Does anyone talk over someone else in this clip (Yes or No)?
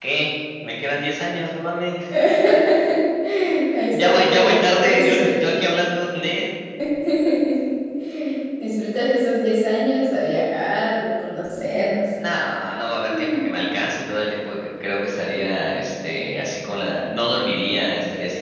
Yes